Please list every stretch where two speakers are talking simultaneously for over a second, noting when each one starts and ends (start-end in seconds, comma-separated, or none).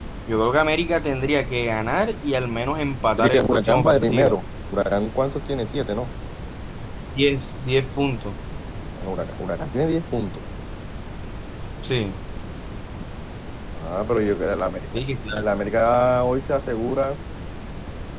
3.1-4.4